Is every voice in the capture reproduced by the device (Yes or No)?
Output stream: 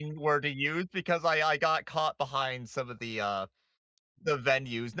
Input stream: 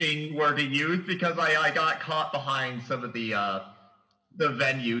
Yes